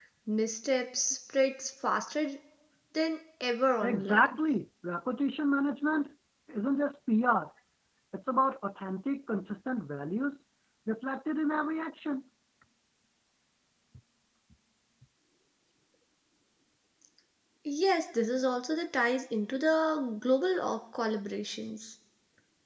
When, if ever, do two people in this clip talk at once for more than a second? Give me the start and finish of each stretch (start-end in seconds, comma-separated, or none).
none